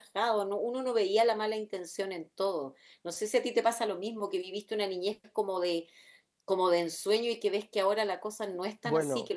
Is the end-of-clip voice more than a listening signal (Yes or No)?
No